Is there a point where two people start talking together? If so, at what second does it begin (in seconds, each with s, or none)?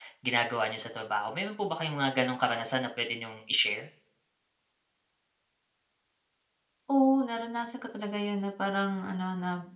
none